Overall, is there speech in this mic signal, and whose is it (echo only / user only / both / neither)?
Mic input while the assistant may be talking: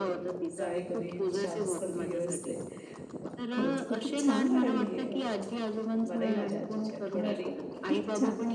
both